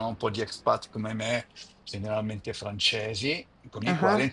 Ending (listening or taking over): listening